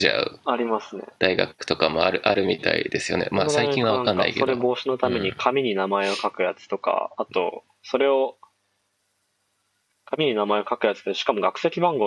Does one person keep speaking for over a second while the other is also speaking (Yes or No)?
Yes